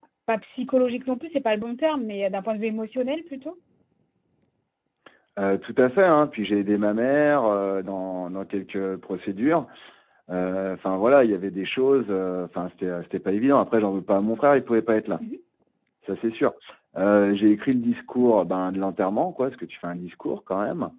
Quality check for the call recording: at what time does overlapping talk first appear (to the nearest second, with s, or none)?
none